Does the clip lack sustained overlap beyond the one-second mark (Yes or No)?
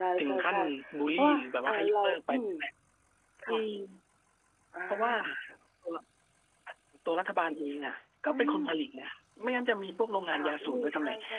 No